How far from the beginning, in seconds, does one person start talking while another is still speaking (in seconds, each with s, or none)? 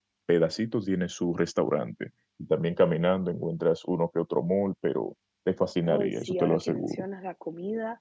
5.8 s